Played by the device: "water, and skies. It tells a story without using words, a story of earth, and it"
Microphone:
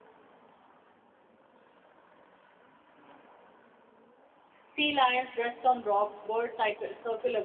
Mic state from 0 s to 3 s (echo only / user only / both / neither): neither